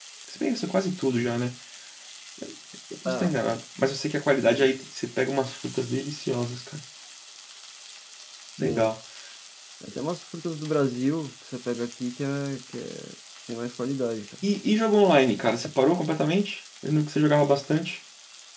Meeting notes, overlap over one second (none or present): none